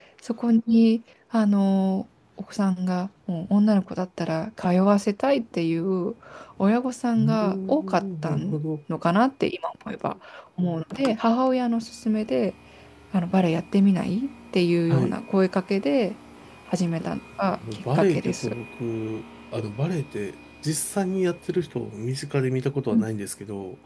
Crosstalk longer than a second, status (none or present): present